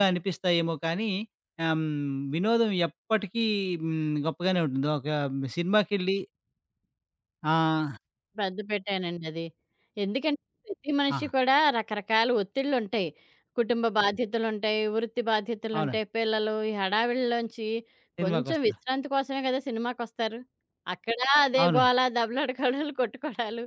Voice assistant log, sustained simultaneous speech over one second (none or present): none